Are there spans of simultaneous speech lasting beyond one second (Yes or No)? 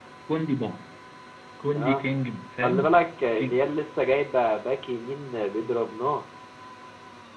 No